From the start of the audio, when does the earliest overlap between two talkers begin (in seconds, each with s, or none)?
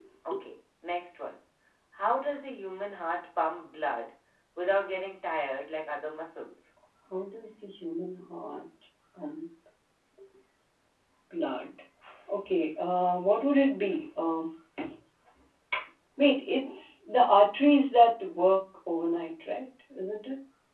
none